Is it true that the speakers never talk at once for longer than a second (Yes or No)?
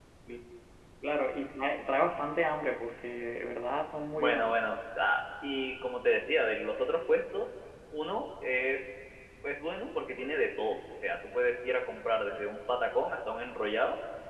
Yes